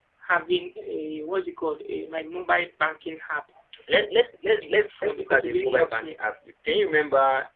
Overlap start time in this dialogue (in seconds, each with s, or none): 4.6 s